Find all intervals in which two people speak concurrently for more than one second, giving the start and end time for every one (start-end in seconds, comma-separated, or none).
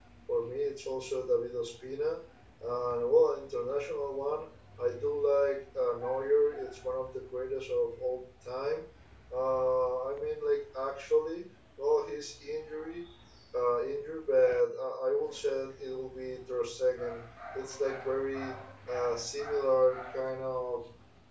none